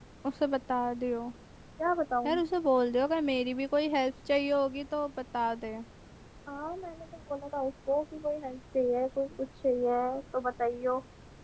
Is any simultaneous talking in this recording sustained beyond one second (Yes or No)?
No